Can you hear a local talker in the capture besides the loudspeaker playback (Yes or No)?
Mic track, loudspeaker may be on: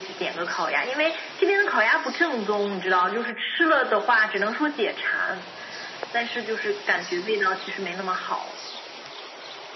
No